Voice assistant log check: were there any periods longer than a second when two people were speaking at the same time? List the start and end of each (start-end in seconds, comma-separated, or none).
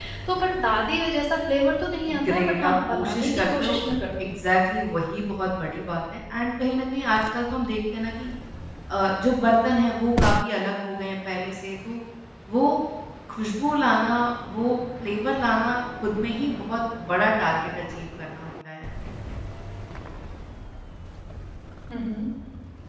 2.3-3.7